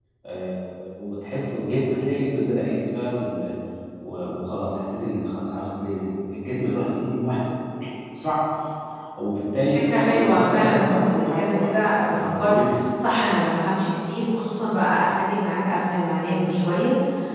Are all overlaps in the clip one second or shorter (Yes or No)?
No